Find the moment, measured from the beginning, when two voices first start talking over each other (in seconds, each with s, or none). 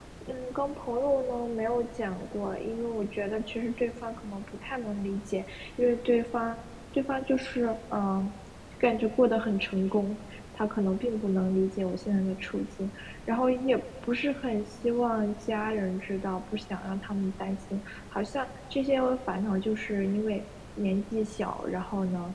none